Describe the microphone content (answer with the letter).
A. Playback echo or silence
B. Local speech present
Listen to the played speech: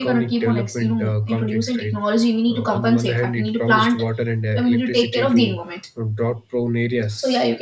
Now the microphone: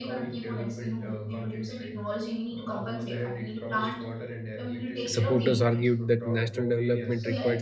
B